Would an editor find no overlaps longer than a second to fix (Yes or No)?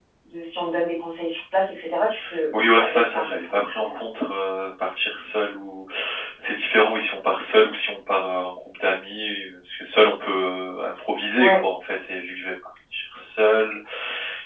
No